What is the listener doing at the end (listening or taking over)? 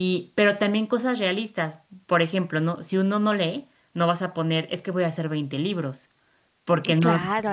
taking over